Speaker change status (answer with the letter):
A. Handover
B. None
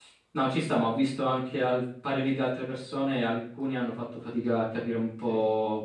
B